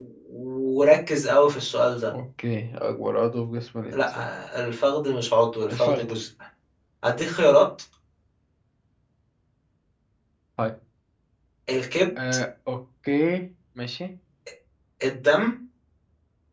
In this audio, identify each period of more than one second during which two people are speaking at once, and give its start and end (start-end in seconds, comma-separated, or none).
none